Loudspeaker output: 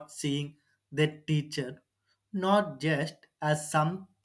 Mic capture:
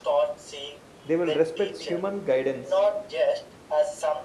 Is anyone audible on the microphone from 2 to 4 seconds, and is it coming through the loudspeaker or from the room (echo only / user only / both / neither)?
both